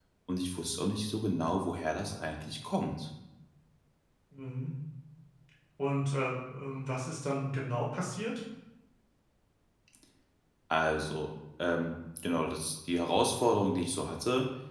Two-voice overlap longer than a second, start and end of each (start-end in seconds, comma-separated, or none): none